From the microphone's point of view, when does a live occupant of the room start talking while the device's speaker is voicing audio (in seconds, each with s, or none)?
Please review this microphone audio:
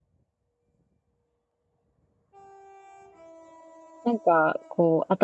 4.0 s